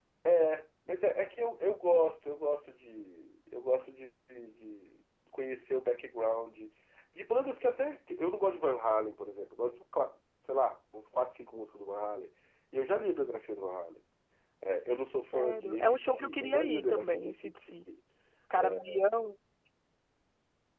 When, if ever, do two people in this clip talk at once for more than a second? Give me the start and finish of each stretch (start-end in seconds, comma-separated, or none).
15.2-17.7